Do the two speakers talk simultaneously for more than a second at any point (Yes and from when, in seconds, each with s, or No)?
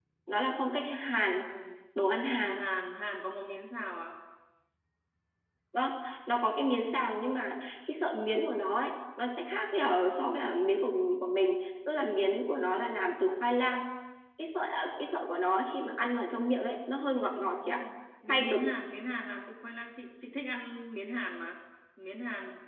No